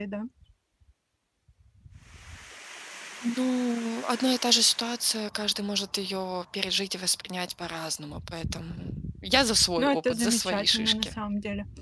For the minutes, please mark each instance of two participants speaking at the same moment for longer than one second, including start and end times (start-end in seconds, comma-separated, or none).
9.8-11.1